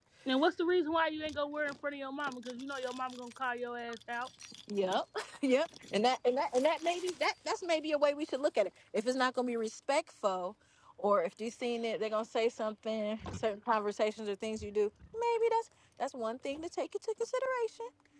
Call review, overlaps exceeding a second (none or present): none